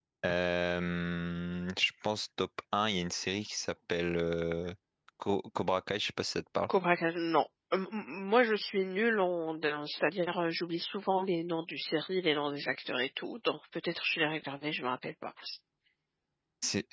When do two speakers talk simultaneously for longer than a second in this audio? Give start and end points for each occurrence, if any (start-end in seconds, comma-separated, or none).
none